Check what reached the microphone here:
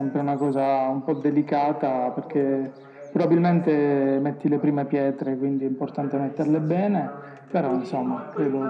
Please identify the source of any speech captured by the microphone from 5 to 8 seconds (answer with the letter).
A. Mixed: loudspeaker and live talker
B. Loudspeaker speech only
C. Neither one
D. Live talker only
A